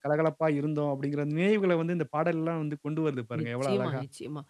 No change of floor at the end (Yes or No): No